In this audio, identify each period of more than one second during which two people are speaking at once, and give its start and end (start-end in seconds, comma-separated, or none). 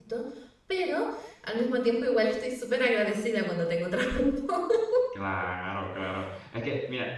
none